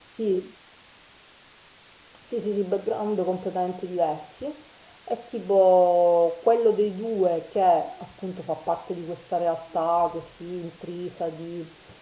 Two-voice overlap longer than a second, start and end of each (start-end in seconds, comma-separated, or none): none